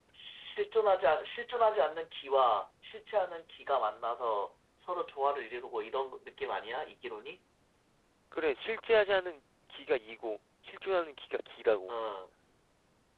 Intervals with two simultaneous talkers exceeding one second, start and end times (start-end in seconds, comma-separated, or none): none